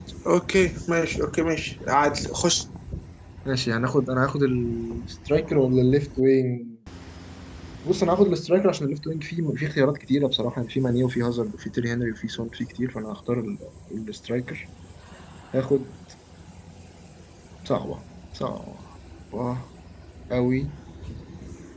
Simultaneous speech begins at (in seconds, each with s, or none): none